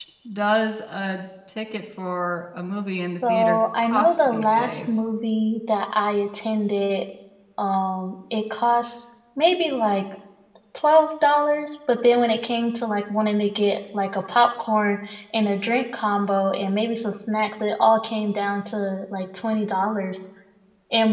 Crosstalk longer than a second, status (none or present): present